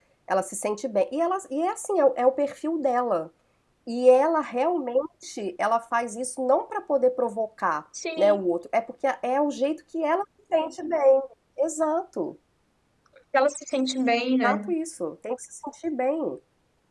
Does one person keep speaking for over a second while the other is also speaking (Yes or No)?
No